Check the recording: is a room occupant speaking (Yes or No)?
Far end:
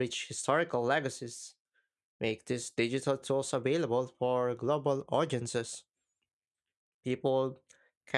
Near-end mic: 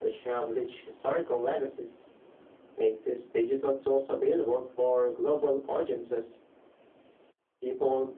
No